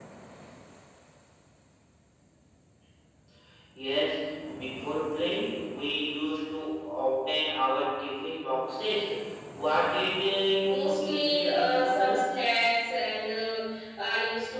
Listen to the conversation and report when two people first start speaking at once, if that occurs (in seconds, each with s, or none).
10.6 s